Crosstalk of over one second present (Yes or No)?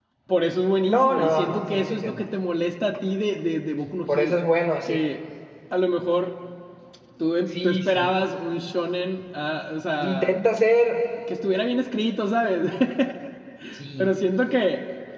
Yes